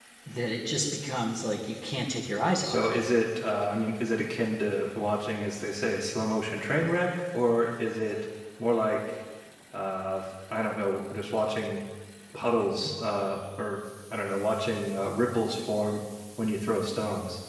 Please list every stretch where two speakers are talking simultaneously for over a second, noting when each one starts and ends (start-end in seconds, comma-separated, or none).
none